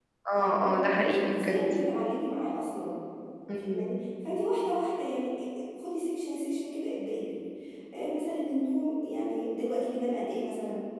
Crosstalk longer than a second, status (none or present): present